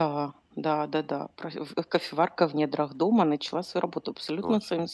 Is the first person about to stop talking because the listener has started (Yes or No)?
Yes